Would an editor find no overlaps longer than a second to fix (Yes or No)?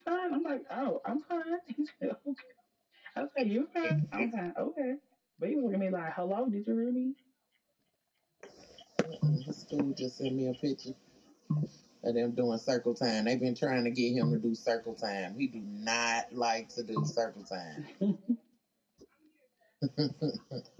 Yes